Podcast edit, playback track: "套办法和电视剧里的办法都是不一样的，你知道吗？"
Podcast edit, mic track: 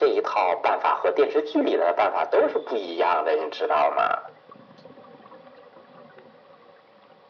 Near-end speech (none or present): none